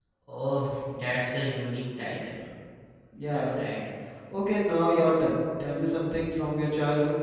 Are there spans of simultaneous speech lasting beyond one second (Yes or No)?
No